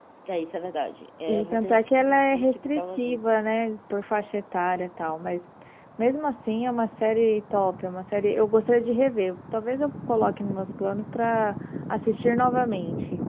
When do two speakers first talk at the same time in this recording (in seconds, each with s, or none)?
1.3 s